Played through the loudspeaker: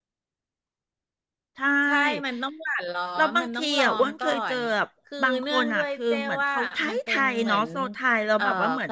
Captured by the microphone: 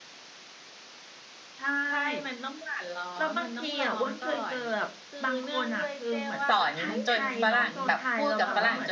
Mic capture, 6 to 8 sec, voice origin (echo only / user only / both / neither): both